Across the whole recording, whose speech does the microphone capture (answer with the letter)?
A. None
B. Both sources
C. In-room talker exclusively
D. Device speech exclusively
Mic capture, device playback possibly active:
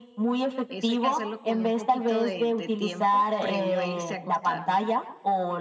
B